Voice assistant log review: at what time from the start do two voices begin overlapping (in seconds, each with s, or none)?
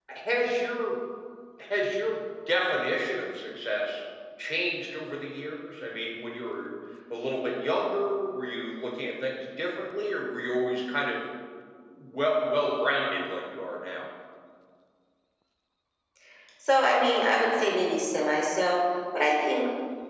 none